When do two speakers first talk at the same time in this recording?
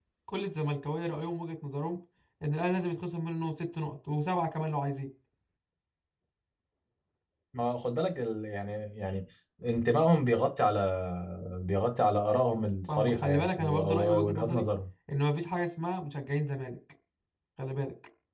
12.9 s

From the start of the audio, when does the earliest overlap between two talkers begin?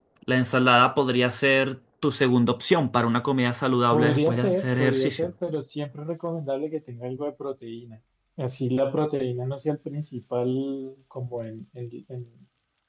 3.9 s

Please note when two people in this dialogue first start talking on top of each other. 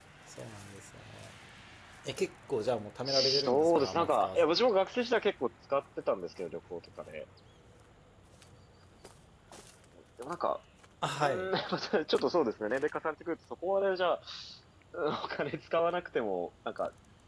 3.0 s

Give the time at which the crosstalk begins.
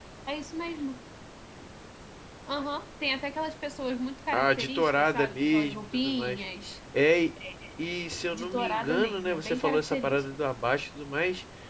4.3 s

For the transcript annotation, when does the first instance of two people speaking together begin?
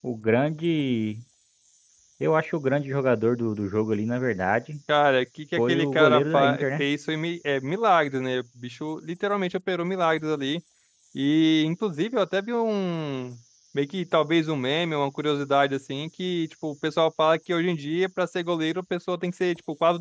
5.6 s

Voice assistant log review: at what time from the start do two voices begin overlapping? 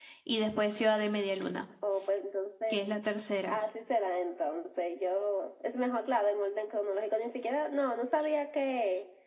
none

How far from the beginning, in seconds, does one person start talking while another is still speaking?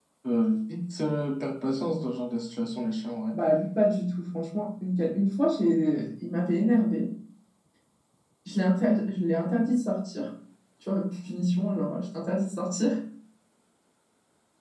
none

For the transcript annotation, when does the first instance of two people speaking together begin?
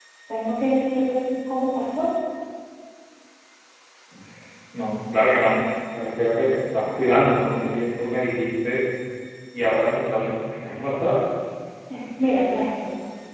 none

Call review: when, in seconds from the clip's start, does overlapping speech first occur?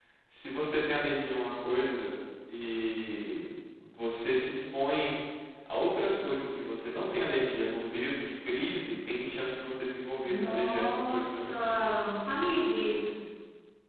10.2 s

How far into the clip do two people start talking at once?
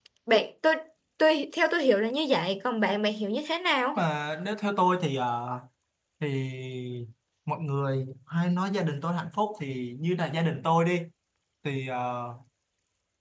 none

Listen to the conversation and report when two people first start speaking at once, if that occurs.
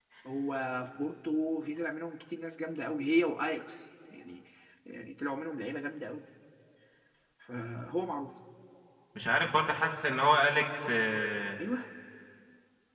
none

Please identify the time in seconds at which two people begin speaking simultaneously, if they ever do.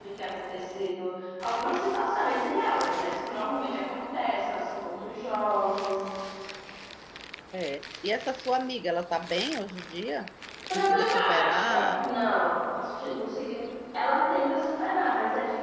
10.7 s

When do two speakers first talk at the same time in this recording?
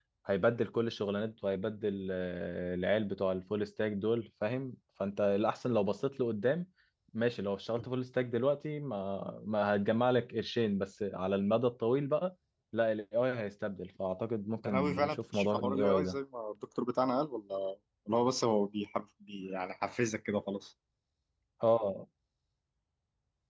14.6 s

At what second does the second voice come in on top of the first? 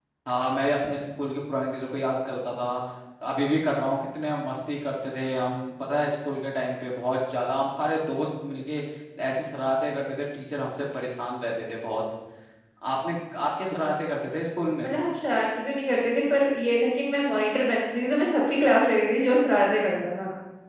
none

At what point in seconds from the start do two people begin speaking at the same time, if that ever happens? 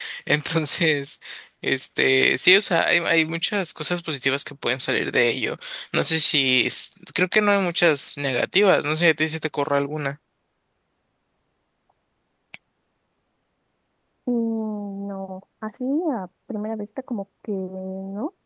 none

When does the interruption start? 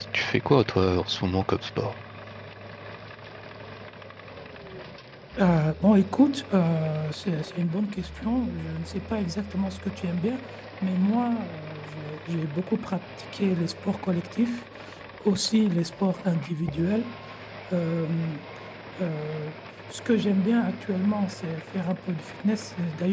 none

